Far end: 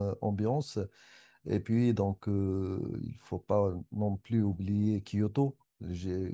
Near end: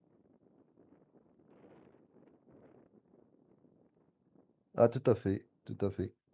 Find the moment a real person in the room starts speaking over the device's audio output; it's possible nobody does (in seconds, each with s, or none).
4.8 s